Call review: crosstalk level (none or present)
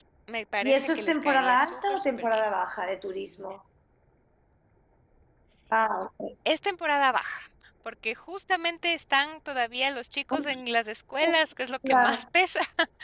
present